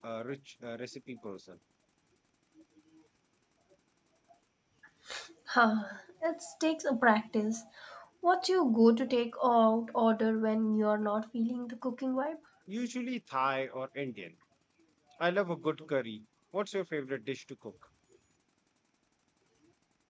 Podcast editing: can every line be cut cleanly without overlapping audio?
Yes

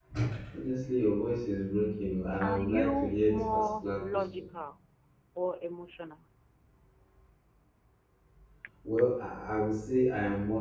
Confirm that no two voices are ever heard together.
No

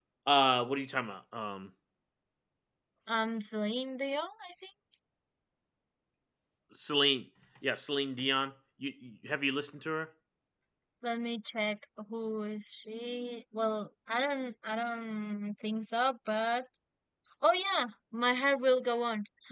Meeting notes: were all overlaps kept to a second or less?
Yes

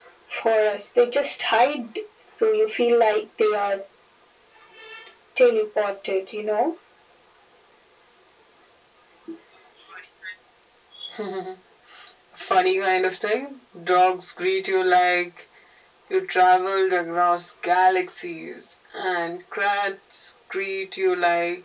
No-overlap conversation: Yes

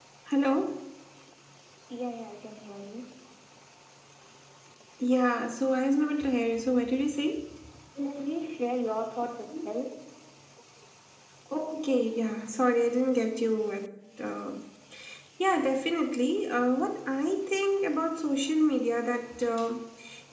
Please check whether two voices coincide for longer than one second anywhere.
No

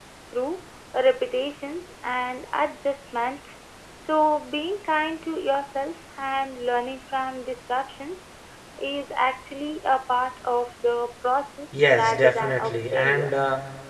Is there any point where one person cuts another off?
Yes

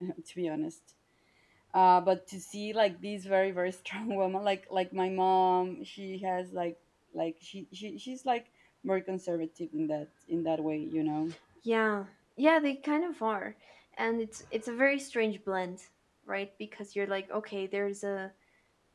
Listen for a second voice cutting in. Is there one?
No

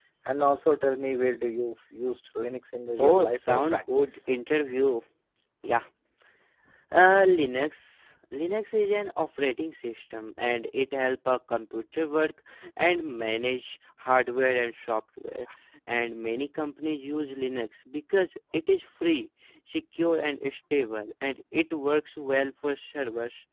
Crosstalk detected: Yes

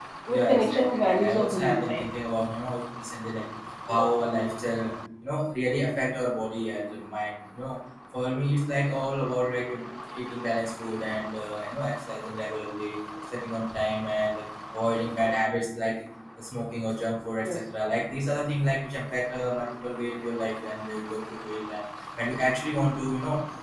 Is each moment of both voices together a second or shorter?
No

